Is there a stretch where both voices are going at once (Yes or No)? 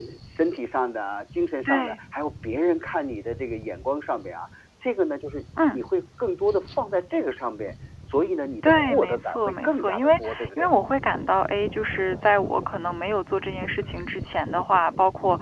Yes